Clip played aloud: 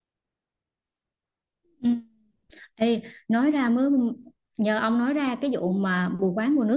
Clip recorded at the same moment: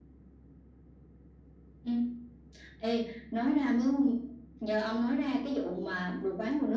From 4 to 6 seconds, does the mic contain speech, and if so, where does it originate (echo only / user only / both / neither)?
echo only